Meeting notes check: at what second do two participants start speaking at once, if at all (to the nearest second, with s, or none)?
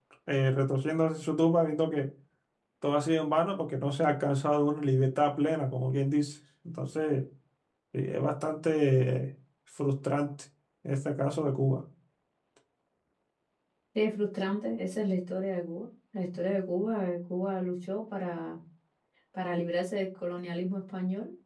none